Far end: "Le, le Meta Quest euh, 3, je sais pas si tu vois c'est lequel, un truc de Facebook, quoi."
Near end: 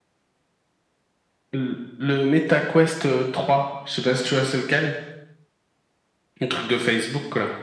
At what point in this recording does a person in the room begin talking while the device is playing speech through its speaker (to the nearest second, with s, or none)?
none